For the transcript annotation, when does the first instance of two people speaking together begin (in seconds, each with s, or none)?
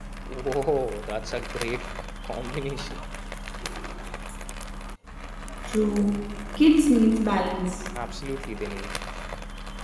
none